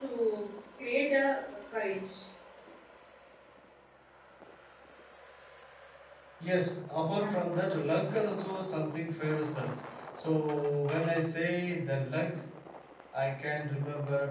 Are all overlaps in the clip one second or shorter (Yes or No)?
Yes